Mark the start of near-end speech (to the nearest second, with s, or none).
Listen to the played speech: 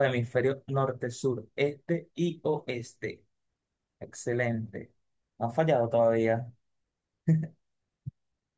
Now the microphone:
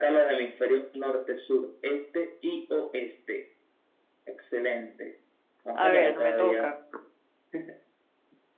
6 s